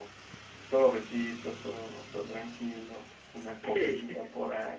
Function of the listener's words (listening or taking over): listening